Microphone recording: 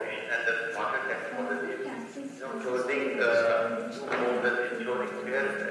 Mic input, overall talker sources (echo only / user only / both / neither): both